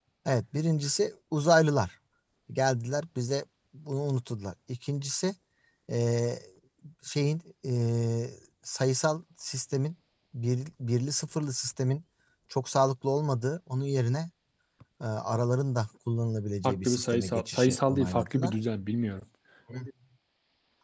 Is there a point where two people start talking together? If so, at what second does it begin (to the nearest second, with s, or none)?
17 s